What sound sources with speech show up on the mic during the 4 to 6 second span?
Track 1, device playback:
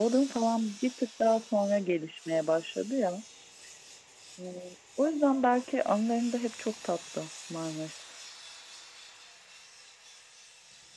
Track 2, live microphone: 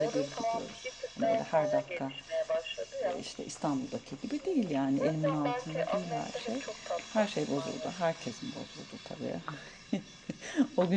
both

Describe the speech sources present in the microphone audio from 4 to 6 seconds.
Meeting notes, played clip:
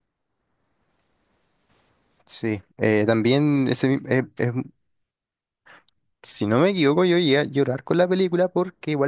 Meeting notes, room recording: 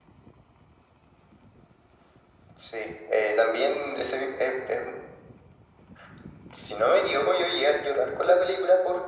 echo only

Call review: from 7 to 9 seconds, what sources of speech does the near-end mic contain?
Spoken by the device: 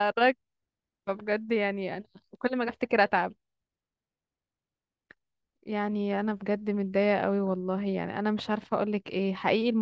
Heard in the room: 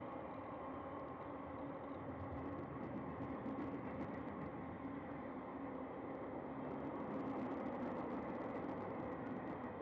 neither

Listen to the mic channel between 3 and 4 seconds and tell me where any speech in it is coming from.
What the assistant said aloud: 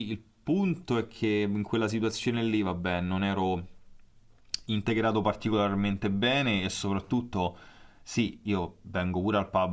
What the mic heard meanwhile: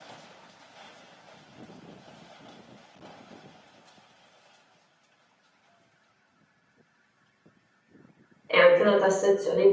neither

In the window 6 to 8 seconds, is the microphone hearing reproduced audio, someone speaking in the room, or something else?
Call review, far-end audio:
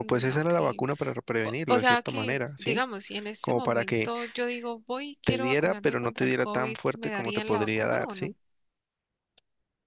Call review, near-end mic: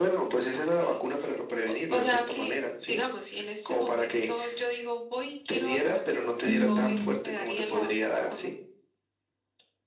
both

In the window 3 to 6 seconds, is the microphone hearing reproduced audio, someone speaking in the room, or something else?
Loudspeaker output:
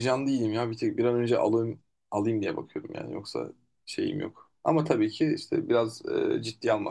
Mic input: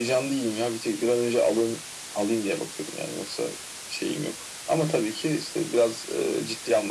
echo only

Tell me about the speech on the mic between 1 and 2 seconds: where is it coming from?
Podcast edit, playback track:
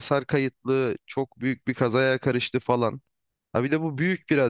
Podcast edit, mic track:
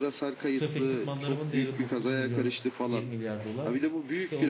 both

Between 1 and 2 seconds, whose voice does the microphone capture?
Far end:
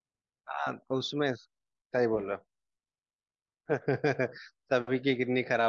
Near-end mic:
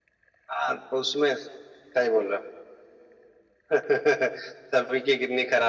echo only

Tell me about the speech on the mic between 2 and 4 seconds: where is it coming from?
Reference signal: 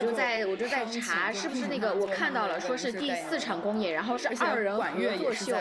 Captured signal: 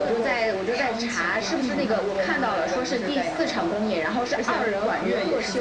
echo only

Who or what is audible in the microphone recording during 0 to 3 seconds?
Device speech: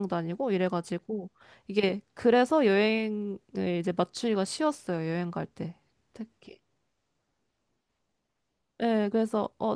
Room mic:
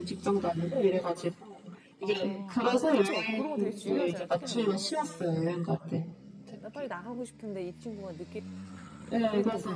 both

